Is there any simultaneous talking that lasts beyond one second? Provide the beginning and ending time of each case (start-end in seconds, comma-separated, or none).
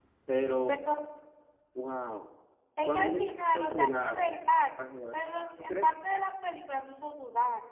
2.8-4.3